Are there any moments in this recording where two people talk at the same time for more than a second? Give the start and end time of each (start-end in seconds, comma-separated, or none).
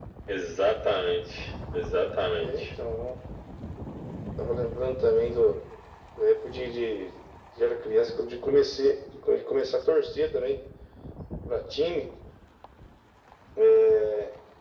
none